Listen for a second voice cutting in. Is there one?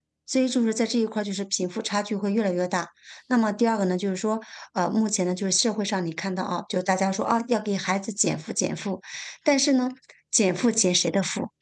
No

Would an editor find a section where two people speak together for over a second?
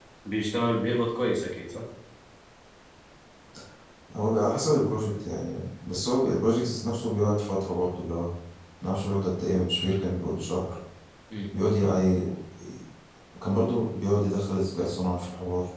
No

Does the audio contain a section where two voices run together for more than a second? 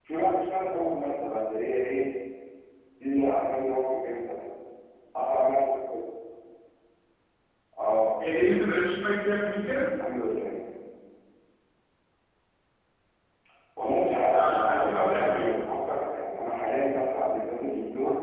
Yes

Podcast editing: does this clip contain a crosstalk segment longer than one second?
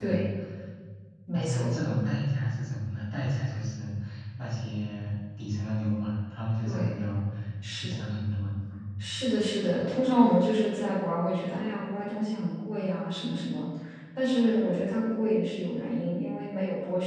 No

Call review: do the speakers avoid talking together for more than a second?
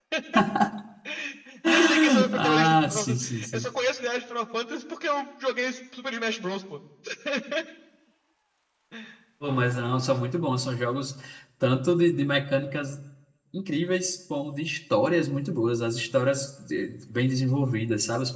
No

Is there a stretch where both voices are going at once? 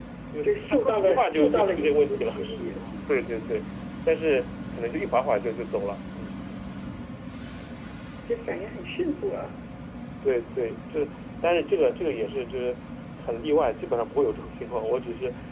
Yes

